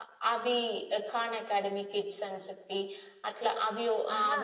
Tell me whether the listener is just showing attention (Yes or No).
Yes